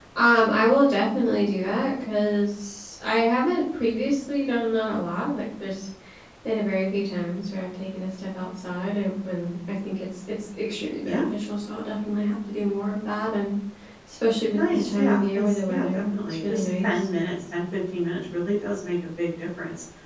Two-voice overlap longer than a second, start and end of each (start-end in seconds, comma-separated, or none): 14.5-17.1